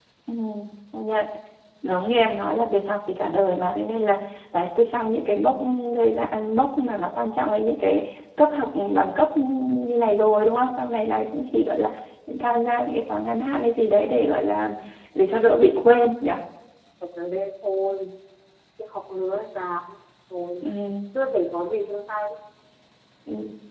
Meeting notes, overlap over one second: none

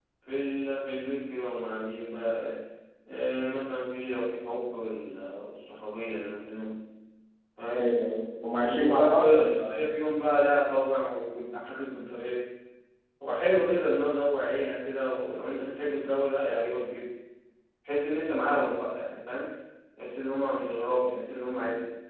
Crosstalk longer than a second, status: present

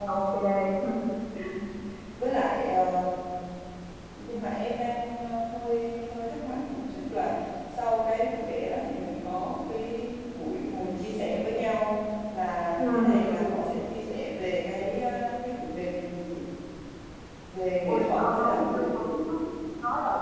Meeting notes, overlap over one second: present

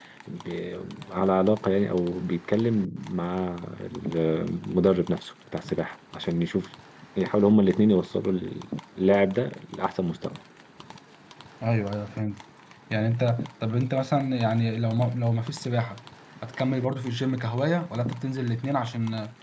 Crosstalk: none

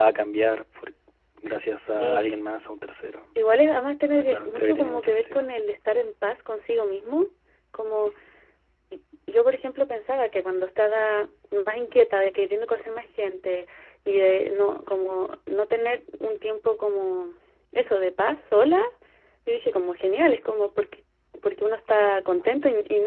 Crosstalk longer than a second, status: present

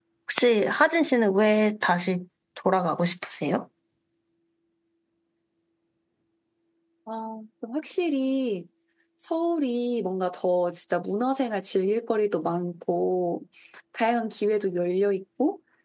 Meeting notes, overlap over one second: none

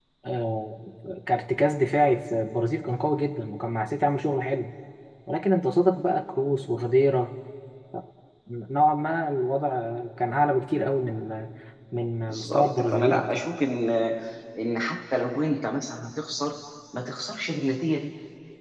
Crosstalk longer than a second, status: present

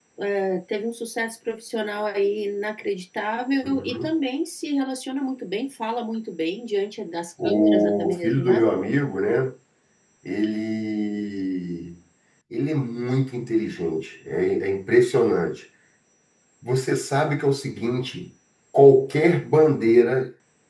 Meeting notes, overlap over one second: present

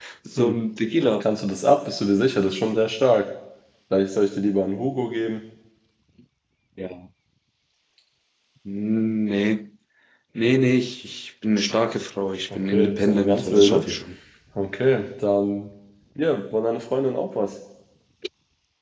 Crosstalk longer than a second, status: present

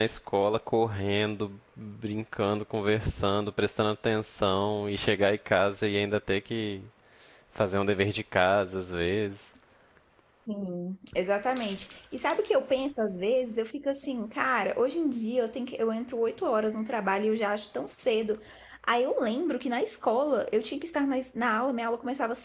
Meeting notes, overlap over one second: none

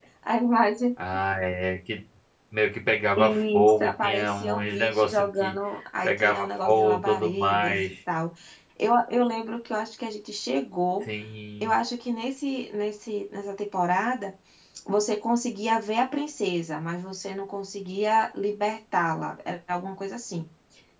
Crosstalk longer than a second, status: present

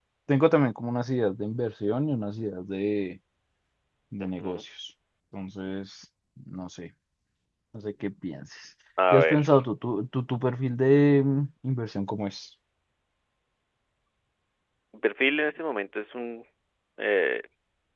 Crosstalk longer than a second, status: none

